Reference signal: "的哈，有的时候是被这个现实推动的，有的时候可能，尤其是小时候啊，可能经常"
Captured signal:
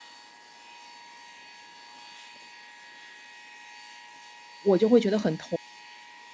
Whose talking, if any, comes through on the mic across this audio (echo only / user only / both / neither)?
user only